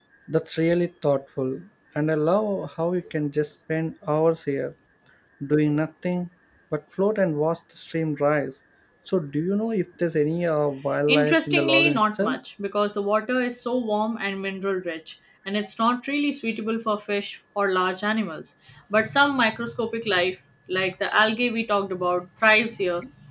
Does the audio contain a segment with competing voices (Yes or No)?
Yes